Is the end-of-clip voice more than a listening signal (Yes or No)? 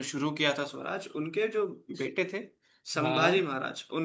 No